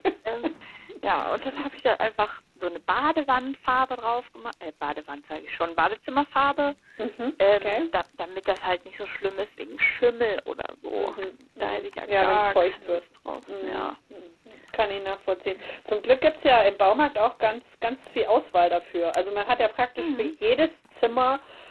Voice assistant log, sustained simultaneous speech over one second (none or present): present